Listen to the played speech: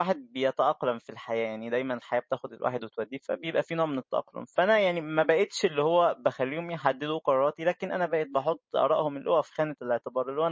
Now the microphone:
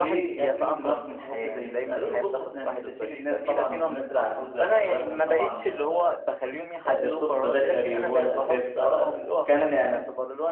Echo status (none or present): present